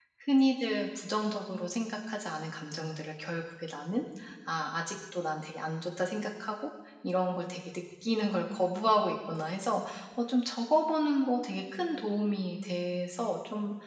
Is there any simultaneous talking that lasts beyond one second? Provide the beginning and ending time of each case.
none

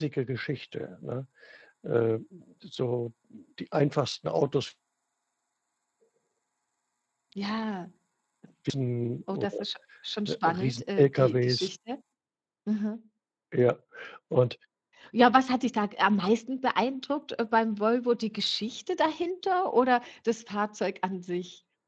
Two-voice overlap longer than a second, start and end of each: 10.3-11.7

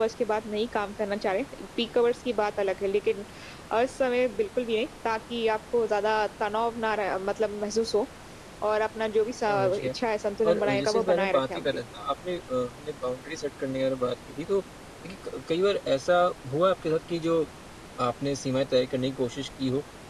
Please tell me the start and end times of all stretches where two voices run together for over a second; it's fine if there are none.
10.4-11.8

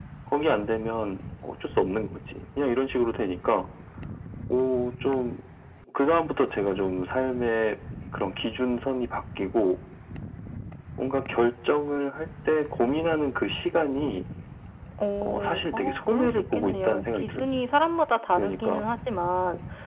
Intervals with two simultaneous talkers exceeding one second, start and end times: 15.2-17.4

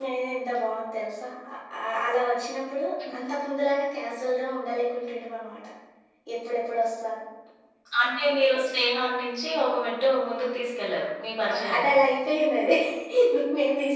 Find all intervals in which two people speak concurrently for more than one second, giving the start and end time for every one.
none

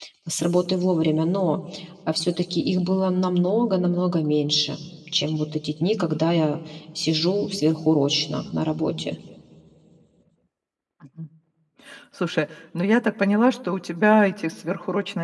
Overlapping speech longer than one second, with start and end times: none

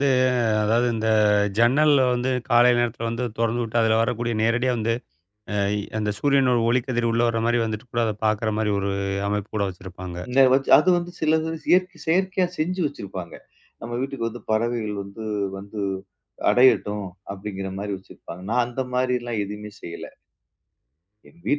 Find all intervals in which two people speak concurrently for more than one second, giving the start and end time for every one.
none

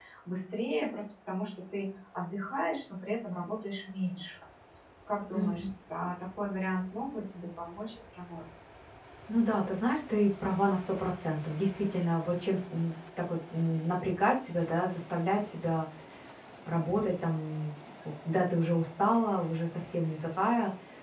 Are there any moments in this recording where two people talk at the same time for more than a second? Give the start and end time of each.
none

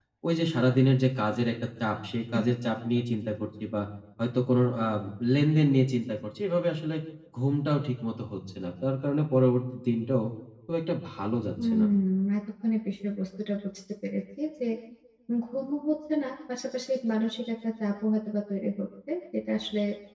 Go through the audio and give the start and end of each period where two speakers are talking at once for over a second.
none

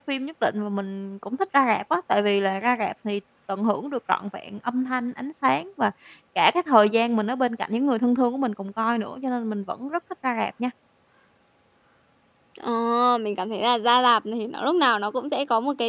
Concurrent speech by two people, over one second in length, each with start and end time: none

